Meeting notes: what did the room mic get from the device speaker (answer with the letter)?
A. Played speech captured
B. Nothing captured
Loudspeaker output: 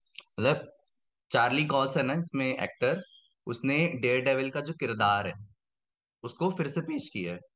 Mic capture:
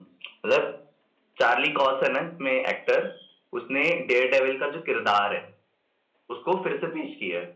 A